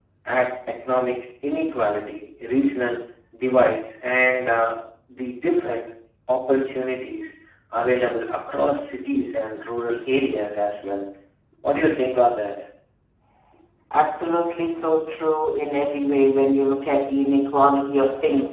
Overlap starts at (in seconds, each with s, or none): none